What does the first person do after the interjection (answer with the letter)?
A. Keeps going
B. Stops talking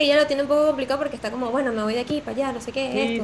B